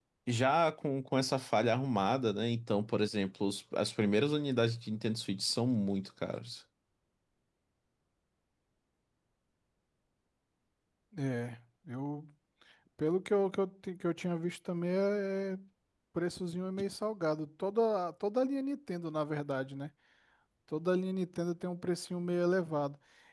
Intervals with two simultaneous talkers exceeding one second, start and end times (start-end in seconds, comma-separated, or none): none